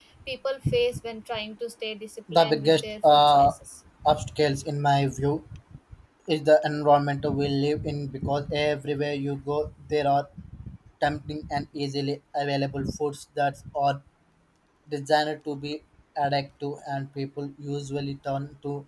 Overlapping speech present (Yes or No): Yes